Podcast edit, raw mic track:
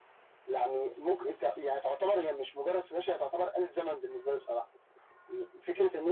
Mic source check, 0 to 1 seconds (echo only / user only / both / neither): echo only